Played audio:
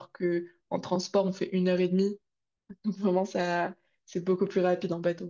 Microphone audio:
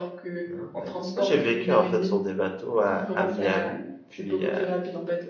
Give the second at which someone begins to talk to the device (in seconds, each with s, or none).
0.5 s